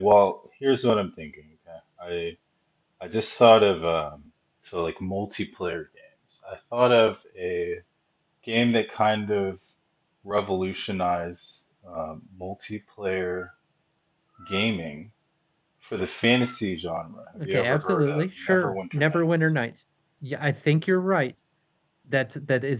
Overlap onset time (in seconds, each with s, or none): 17.4 s